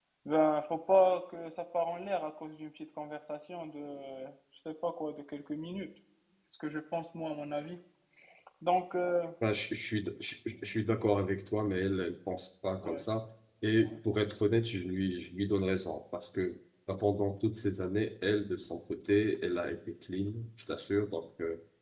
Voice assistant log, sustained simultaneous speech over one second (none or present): none